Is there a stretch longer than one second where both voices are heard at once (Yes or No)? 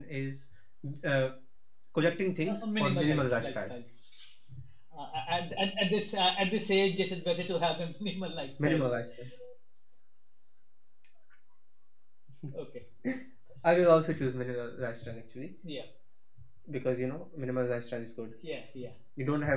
Yes